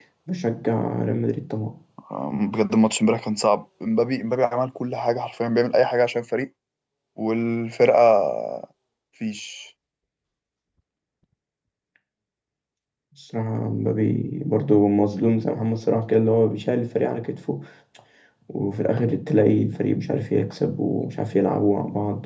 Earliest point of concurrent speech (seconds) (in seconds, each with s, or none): none